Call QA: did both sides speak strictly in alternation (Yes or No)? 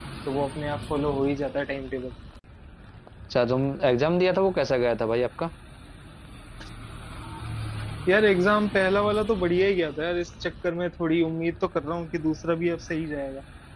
Yes